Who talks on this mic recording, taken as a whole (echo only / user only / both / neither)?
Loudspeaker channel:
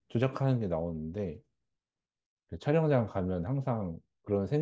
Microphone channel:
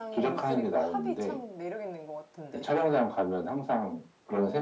both